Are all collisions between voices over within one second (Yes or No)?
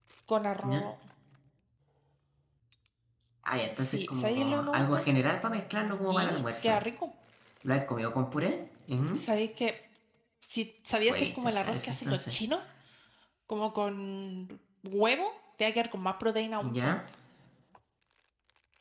No